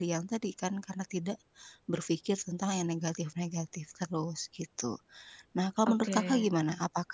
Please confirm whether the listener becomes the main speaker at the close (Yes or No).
No